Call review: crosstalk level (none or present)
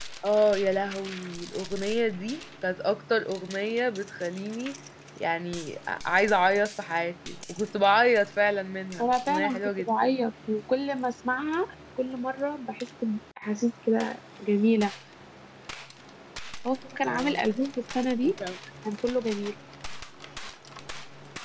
present